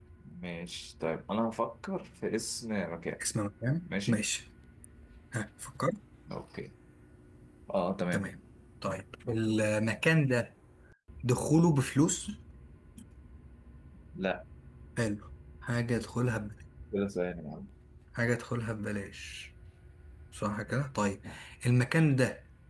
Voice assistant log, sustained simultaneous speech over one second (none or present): none